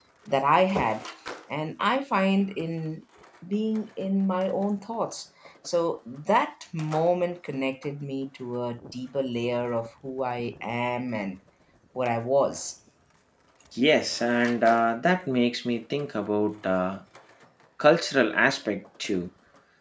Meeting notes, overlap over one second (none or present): none